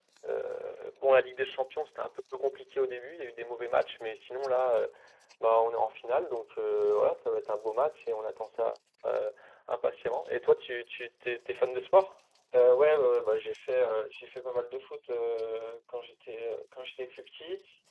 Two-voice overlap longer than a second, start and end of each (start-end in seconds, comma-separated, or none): none